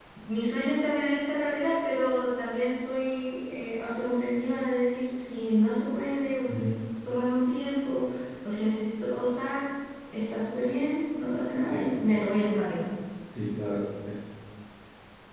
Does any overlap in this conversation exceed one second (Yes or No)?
No